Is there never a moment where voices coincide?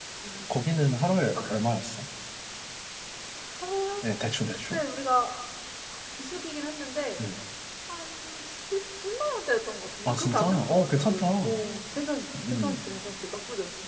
No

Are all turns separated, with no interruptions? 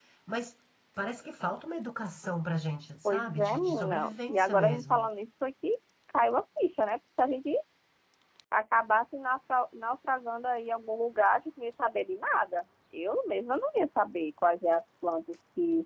No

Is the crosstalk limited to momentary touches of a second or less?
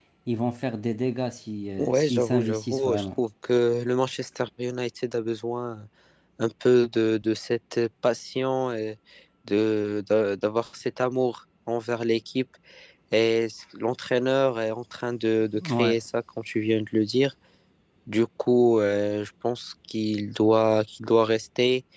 No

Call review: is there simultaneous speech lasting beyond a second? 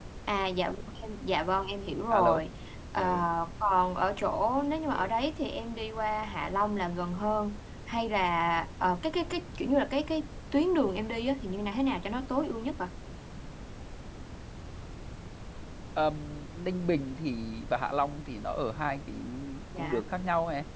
No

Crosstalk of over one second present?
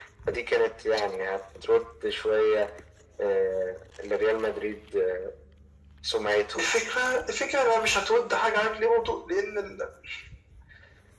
No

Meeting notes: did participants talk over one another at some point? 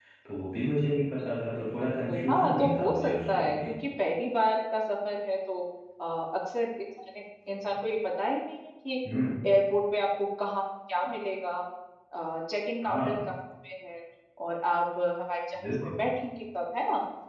Yes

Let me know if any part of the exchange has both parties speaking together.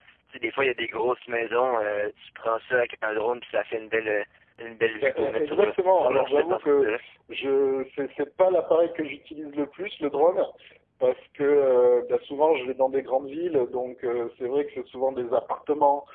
Yes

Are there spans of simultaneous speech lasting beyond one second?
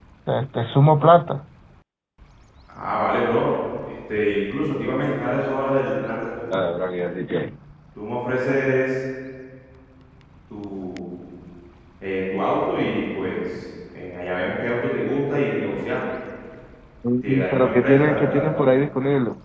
Yes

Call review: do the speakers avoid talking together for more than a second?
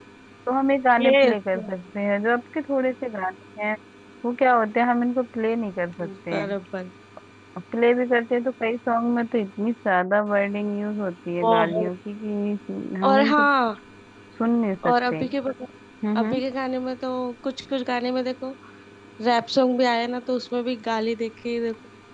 Yes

